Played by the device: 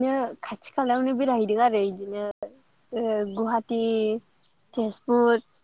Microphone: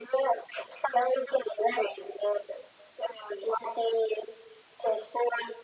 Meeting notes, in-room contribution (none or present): none